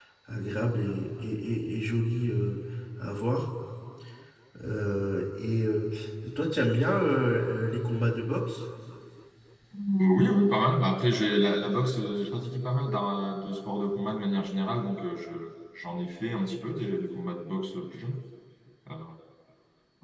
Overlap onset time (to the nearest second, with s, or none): none